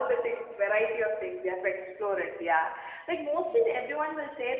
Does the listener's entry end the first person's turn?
No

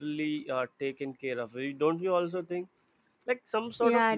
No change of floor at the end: Yes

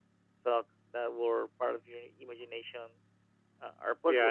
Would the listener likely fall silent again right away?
No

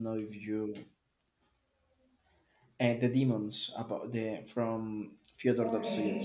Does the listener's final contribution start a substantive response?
Yes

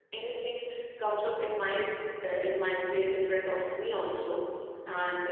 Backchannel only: Yes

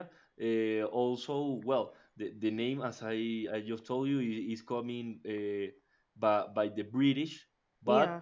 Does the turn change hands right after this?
No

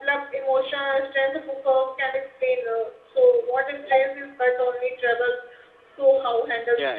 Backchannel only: No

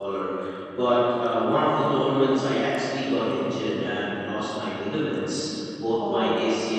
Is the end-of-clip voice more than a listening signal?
No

